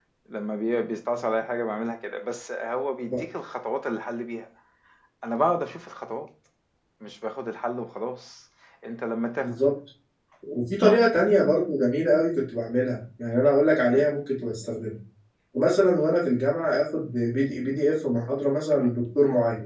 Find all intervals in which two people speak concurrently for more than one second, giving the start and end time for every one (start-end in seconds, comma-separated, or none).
none